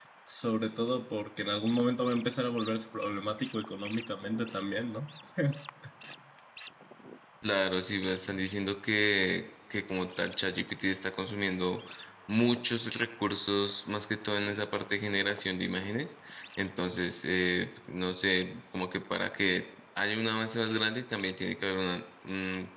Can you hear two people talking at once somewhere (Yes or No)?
No